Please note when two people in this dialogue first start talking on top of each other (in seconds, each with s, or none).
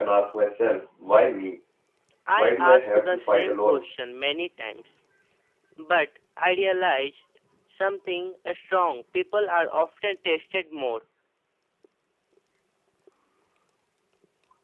2.4 s